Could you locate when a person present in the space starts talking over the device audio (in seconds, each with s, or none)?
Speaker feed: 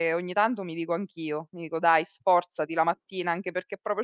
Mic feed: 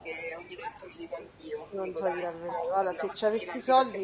1.8 s